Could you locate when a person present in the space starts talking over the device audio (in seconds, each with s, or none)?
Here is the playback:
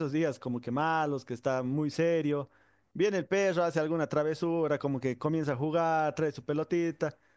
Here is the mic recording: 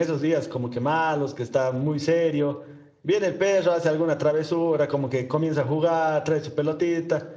none